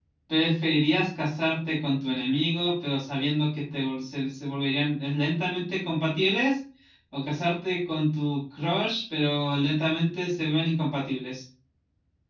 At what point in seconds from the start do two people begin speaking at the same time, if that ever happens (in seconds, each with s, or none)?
none